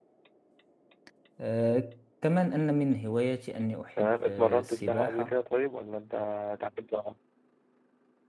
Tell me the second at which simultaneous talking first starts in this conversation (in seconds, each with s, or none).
4.0 s